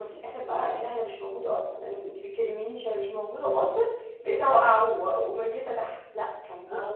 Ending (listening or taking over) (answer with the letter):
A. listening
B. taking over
B